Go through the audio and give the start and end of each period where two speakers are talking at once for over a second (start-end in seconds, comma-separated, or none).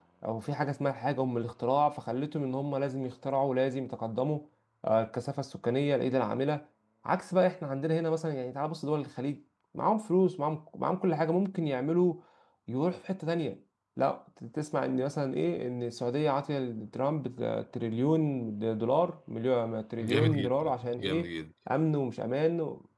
20.0-21.3